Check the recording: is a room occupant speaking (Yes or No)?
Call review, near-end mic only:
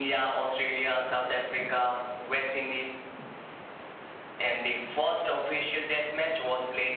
No